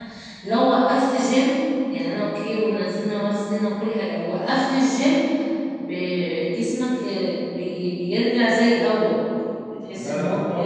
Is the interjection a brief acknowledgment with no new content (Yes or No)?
No